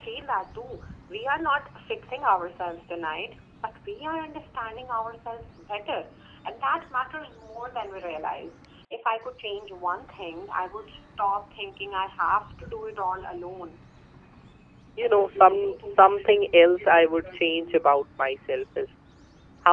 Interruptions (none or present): none